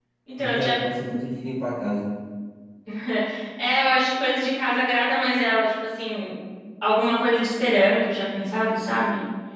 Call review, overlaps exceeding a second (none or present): none